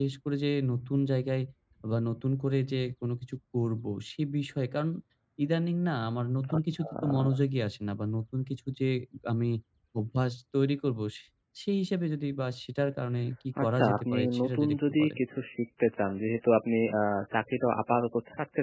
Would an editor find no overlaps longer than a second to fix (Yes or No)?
No